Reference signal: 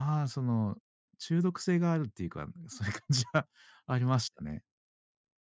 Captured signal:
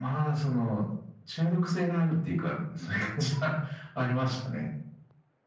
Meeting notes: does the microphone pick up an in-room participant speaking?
No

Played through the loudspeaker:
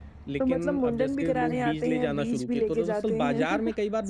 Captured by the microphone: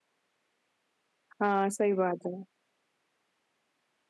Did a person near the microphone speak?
Yes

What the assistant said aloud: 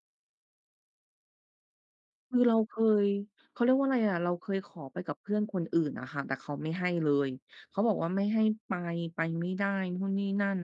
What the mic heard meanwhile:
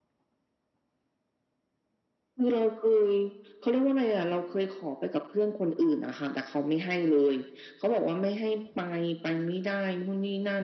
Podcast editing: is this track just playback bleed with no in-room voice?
Yes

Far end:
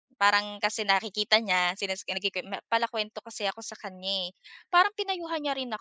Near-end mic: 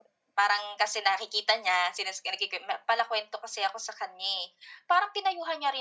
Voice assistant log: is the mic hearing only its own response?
Yes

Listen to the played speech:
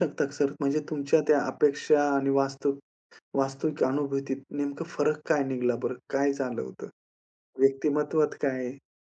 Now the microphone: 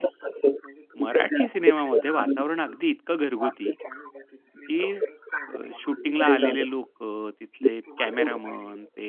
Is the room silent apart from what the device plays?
No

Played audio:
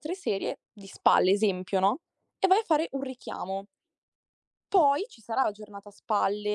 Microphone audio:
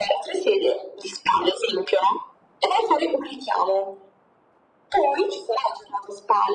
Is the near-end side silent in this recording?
Yes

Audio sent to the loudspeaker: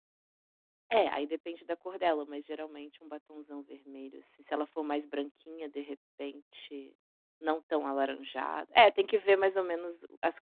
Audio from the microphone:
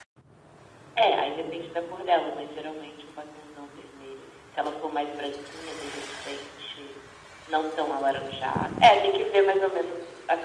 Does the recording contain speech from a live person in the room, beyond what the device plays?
No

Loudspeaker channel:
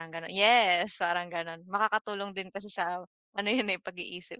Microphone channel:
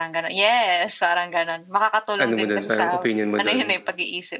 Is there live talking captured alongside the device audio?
Yes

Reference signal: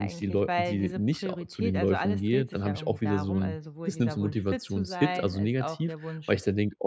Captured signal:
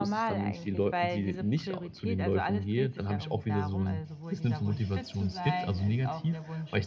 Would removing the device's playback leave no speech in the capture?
Yes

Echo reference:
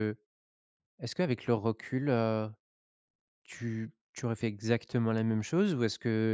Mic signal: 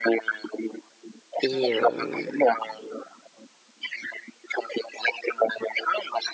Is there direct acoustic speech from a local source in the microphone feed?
Yes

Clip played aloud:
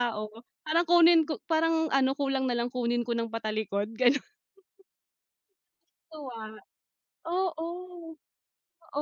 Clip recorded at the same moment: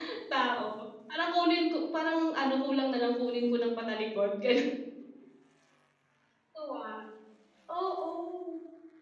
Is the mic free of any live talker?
Yes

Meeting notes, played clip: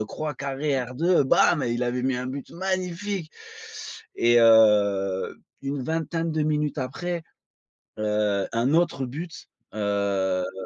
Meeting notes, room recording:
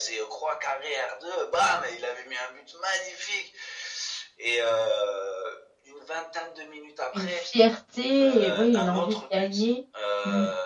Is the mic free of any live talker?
No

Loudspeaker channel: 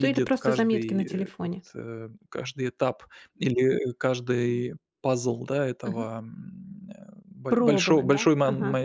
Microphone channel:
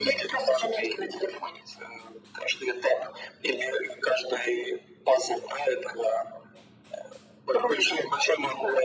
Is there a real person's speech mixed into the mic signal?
No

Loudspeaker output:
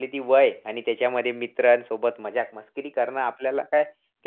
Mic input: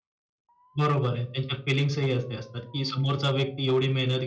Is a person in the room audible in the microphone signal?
Yes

